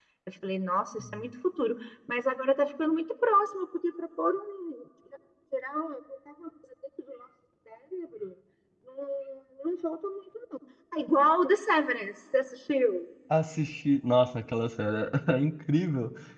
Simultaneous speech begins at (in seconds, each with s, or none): none